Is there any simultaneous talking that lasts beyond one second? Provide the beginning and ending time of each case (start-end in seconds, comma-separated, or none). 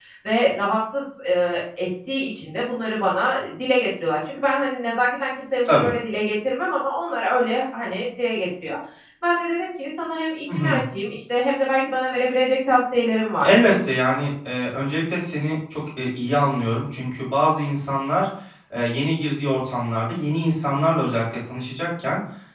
none